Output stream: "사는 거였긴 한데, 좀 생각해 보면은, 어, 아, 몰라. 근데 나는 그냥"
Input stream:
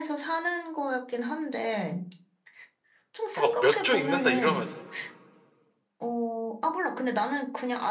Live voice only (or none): 막 몇 조 있는다 이러면